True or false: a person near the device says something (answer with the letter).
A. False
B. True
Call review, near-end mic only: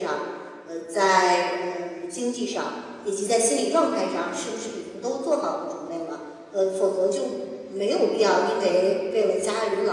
A